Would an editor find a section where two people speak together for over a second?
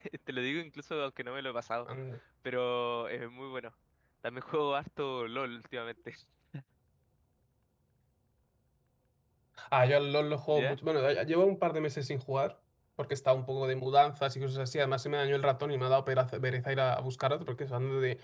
No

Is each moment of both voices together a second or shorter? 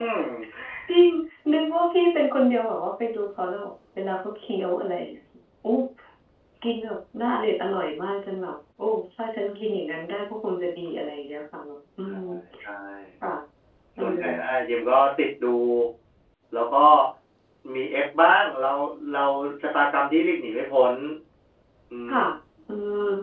Yes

